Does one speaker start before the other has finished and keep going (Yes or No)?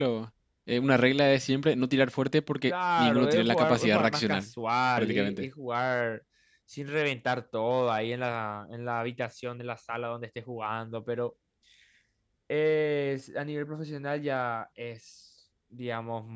Yes